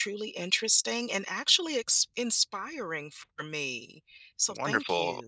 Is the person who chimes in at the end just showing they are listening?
No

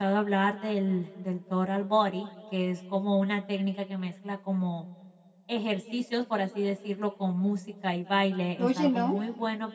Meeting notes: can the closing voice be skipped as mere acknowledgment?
Yes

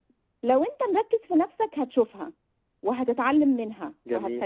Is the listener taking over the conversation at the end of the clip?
No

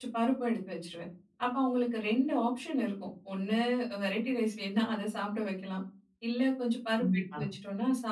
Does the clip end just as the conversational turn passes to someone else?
No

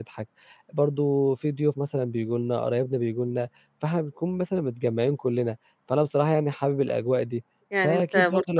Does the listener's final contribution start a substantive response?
Yes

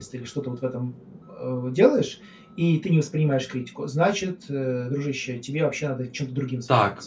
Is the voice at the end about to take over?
Yes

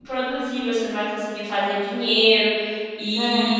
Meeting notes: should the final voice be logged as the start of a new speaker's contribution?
No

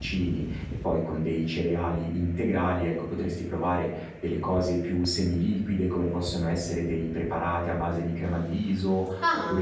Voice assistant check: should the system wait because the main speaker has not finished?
Yes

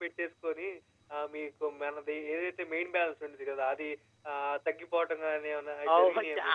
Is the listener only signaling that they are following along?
No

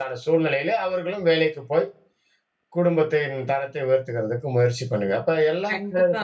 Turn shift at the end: Yes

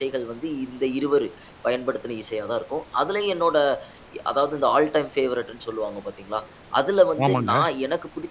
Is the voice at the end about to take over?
No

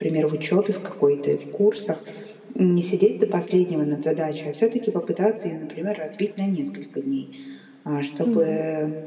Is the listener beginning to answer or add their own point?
No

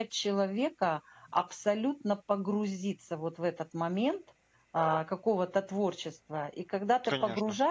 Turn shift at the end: No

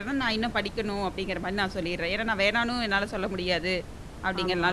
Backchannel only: Yes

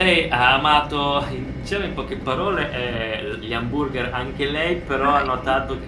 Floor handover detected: No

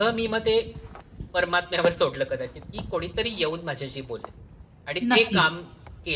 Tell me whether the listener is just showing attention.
Yes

